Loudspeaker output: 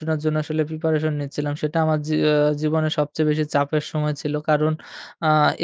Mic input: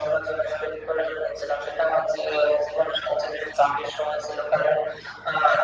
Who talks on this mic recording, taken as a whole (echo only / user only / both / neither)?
echo only